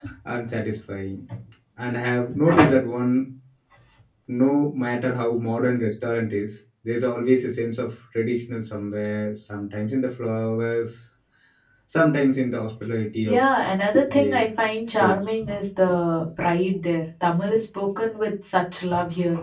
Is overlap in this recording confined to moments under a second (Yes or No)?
Yes